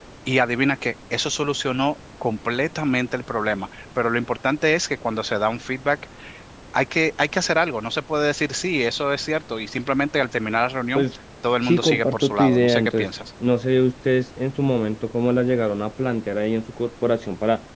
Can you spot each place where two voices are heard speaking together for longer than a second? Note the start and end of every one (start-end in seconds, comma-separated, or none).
11.6-13.1